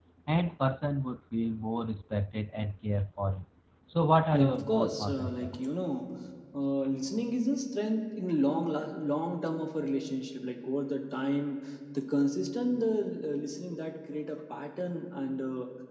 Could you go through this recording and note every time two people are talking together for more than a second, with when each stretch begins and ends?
4.3-5.5

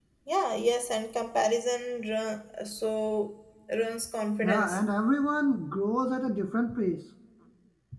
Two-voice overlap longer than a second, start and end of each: none

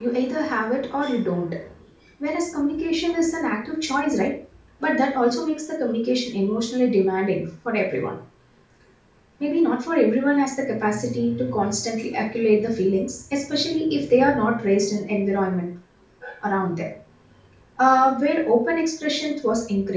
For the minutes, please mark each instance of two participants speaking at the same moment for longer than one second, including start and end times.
none

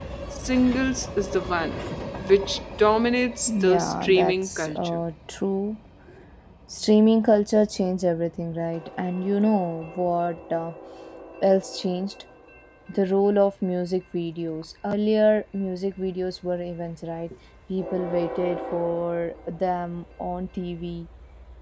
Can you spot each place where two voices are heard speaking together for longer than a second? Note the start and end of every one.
3.5-5.0

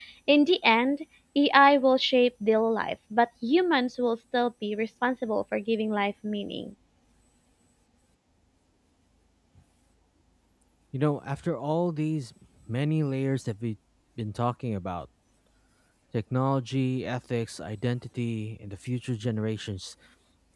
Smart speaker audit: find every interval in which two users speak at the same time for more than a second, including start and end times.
none

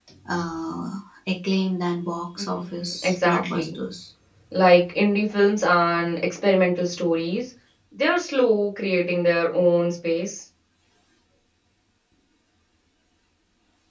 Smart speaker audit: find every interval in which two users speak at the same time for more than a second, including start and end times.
2.4-3.8

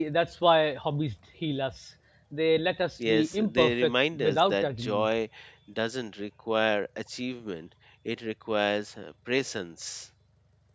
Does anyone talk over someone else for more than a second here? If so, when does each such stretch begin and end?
3.1-5.1

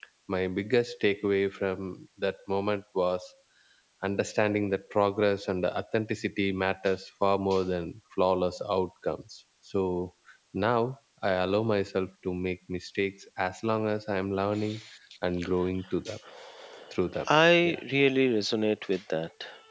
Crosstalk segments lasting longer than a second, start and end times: none

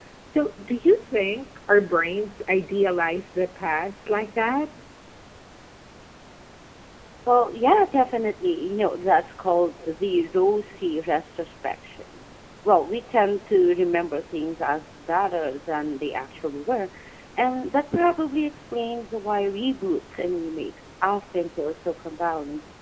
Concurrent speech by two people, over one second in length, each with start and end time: none

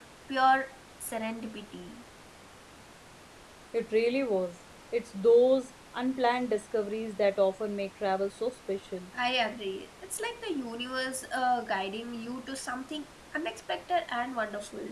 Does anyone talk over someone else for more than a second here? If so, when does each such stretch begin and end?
none

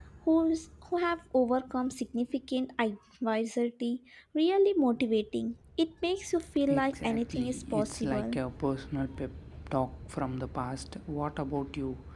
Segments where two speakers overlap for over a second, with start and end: 6.7-8.4

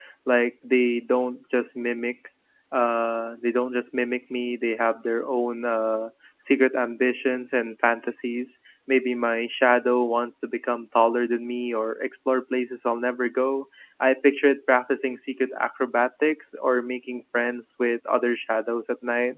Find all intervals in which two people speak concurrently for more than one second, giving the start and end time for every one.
none

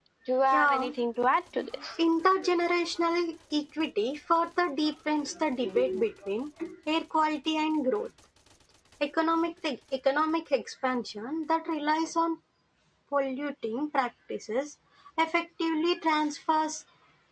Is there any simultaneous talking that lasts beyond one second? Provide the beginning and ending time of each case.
none

